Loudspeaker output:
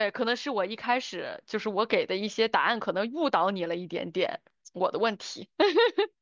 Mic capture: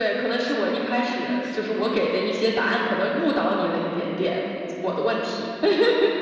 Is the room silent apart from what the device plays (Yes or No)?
No